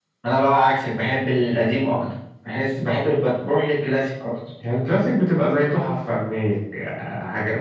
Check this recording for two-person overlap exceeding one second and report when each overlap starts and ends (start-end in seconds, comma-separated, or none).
none